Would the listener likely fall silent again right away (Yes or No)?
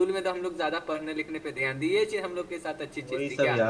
No